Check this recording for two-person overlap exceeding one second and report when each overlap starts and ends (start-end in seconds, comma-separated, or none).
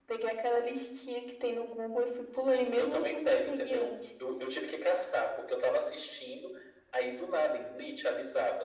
2.3-4.0